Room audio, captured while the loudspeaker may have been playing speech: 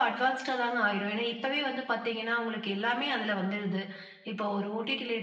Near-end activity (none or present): none